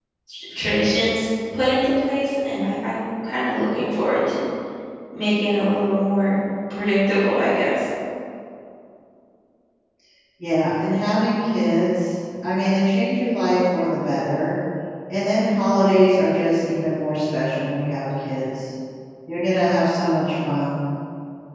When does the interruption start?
none

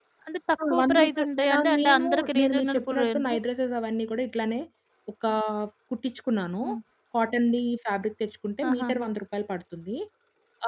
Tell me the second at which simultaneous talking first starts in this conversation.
0.7 s

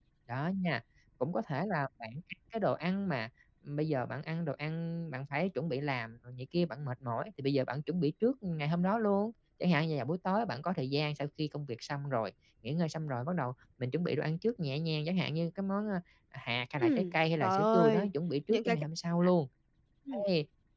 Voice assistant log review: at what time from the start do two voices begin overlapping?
16.8 s

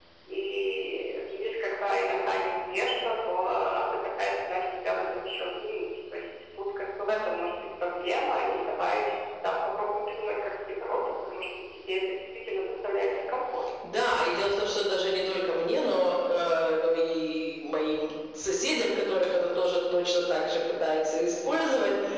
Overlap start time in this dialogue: none

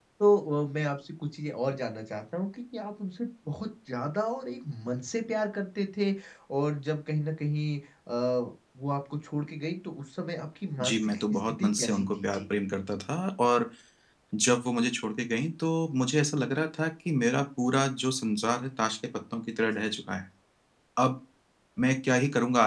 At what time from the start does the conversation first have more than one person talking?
10.8 s

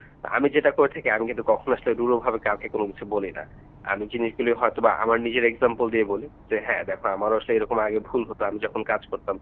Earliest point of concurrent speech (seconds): none

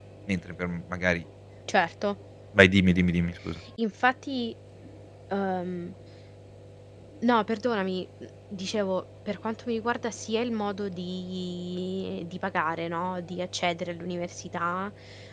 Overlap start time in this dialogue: none

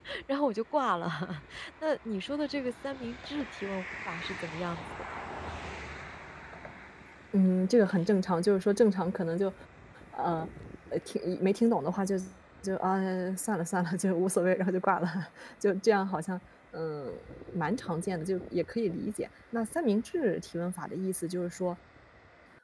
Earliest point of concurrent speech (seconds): none

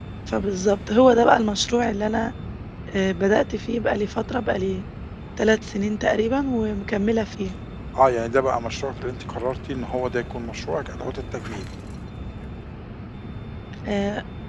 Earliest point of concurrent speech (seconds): none

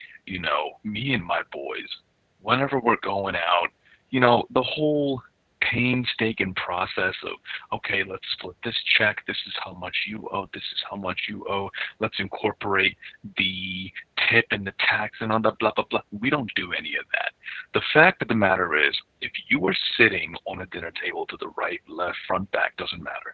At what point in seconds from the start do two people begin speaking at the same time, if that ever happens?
none

